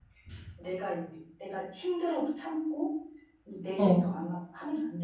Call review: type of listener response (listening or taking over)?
listening